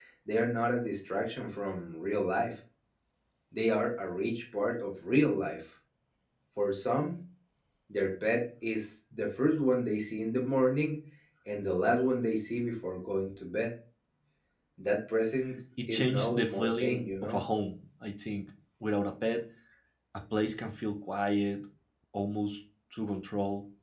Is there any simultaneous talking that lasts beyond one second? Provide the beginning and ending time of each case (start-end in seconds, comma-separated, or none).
15.9-17.4